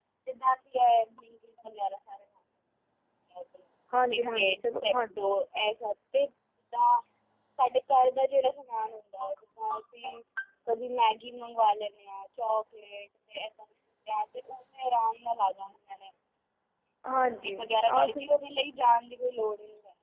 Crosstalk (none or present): present